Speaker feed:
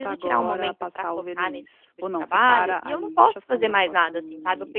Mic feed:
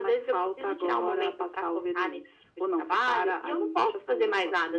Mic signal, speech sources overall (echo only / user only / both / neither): echo only